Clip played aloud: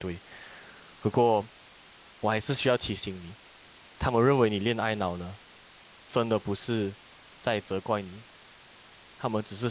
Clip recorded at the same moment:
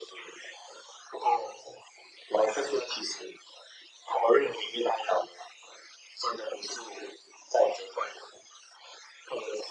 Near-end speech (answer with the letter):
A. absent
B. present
A